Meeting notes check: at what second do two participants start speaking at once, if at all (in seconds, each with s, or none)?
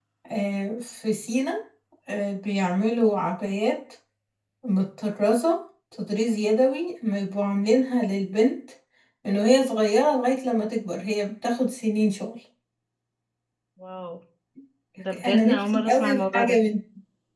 15.2 s